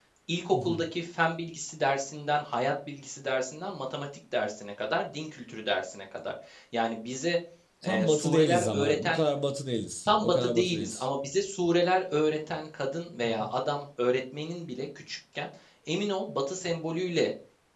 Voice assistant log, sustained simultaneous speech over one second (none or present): present